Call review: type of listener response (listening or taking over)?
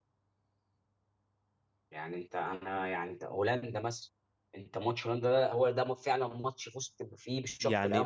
taking over